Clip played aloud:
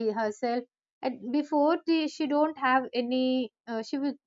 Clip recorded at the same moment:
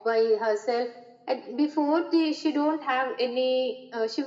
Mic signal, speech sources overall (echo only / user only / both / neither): echo only